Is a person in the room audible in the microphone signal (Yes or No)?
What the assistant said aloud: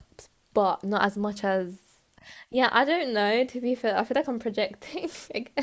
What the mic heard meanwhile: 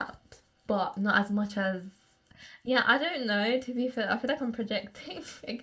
No